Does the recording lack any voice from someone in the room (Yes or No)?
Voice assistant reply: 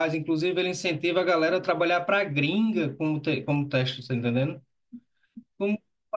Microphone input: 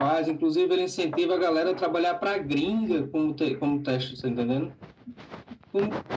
Yes